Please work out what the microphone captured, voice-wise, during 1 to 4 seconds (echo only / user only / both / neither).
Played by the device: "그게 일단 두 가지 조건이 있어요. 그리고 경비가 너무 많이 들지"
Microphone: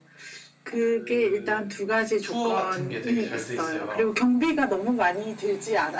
both